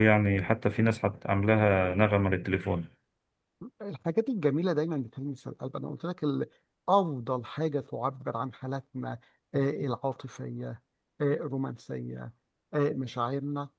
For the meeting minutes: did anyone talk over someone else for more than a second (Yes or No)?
No